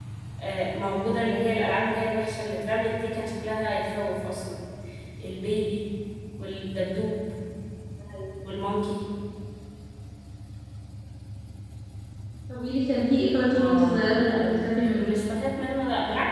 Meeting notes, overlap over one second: present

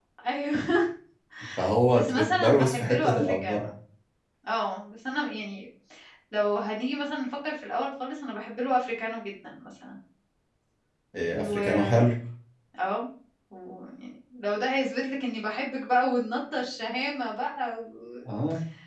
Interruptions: present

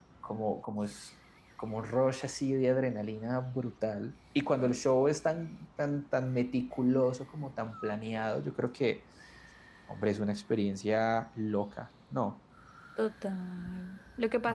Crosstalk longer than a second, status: none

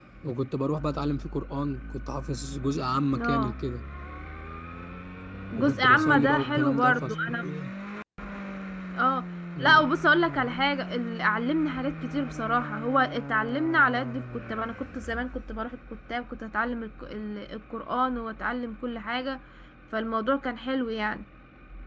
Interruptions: present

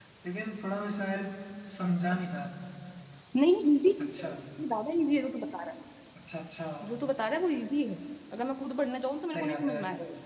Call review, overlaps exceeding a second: none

